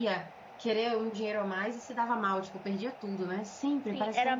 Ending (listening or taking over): taking over